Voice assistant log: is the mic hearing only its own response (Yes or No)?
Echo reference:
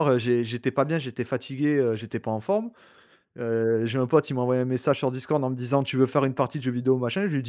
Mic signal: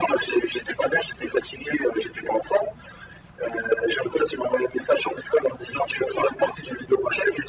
Yes